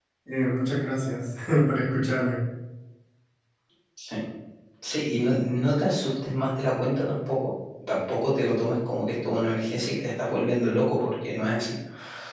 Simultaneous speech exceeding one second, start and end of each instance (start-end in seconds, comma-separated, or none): none